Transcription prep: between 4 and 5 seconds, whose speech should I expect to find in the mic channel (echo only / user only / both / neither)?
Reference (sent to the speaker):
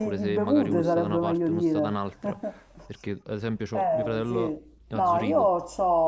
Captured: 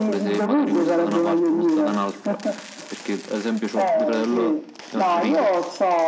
echo only